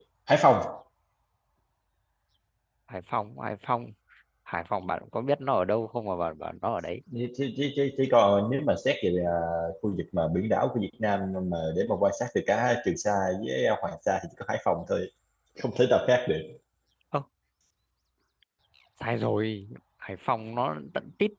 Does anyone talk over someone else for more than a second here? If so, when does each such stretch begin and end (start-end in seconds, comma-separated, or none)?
none